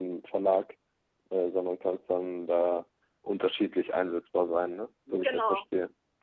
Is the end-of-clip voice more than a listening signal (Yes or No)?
Yes